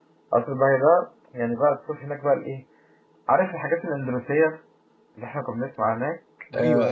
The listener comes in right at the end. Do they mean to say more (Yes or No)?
Yes